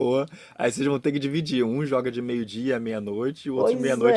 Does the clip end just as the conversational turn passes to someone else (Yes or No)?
Yes